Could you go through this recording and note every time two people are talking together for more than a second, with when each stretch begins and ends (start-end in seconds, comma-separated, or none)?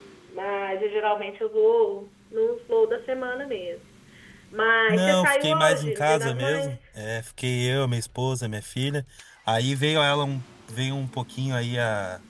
4.9-6.8